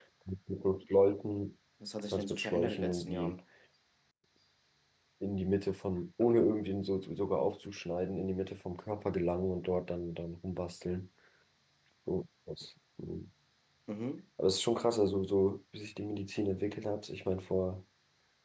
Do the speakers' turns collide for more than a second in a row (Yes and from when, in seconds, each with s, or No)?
Yes, from 2.1 s